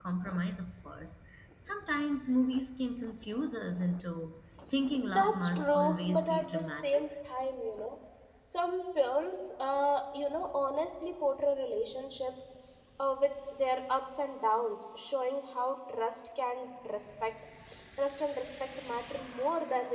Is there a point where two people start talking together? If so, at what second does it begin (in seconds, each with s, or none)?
5.1 s